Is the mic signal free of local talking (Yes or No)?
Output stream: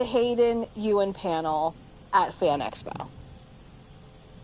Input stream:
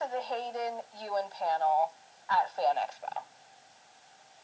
Yes